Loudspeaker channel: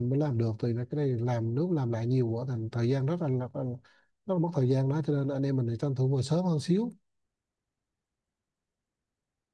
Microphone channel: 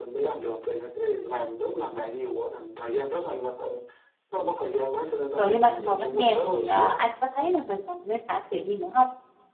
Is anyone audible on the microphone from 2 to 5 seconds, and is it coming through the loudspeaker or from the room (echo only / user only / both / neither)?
echo only